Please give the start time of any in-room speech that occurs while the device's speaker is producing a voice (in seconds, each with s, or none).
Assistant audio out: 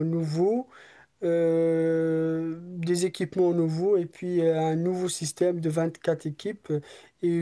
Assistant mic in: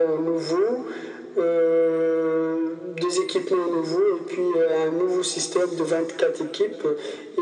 none